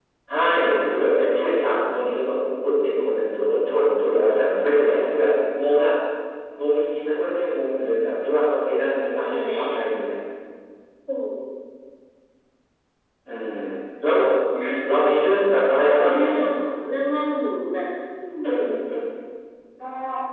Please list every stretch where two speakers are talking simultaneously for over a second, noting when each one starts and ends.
none

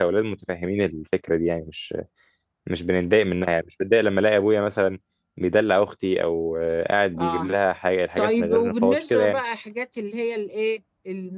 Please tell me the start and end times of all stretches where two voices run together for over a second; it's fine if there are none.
8.2-9.4

